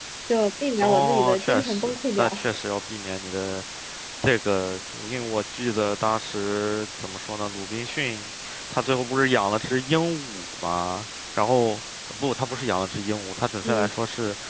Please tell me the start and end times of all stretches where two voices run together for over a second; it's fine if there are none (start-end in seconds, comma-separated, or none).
0.8-2.4